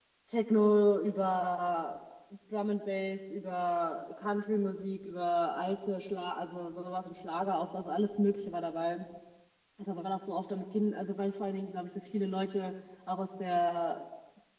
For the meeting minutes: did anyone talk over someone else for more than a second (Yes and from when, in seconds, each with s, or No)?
No